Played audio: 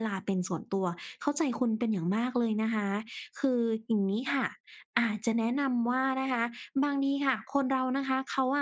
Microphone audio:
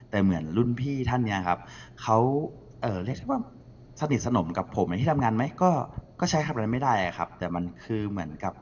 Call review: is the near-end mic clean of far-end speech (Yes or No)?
Yes